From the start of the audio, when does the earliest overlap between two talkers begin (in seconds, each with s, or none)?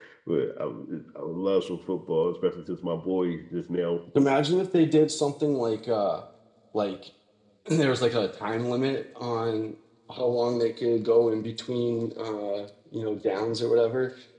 none